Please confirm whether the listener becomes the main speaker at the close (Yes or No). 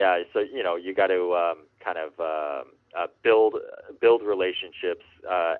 No